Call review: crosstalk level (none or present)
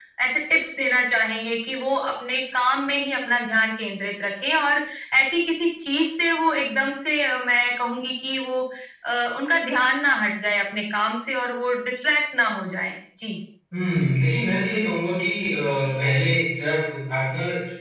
none